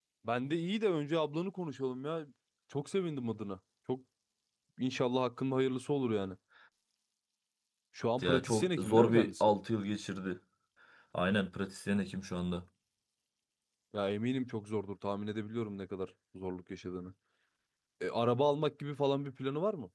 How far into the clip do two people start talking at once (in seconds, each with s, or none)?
8.2 s